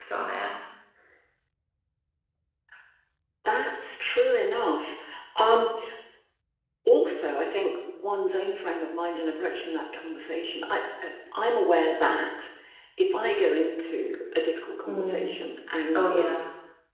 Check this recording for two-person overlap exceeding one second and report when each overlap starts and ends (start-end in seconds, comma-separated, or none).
none